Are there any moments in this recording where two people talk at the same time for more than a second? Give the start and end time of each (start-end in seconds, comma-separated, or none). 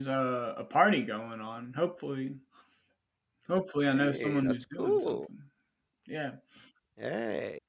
3.9-5.2